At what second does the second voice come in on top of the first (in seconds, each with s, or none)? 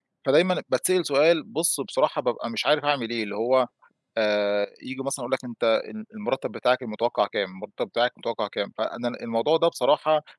none